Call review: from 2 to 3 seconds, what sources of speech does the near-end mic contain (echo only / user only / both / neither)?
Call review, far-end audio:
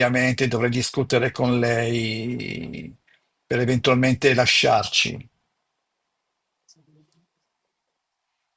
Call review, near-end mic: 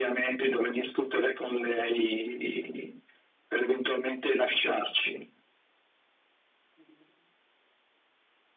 echo only